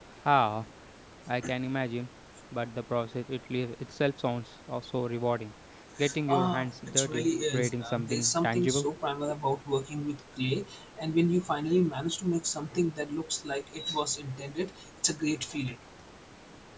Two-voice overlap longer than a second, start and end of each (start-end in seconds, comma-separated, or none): 6.3-8.9